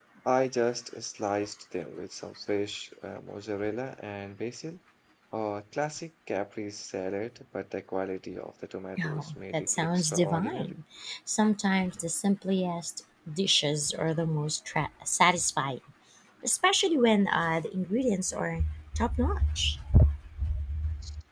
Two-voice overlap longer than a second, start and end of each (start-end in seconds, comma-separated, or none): 9.0-10.7